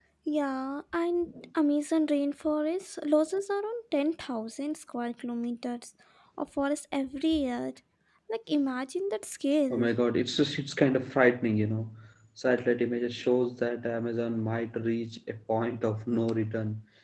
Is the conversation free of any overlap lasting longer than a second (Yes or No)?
Yes